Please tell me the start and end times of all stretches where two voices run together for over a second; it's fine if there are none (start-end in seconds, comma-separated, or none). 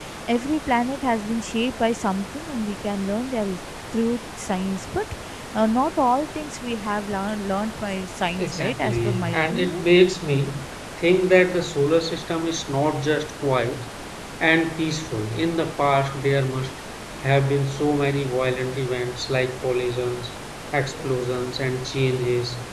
8.4-9.8